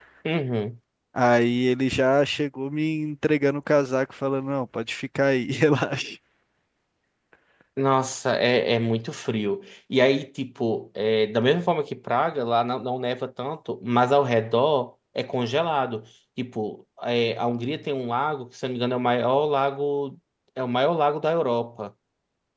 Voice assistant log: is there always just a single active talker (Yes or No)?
Yes